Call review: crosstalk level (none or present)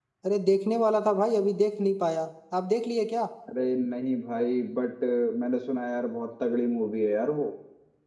none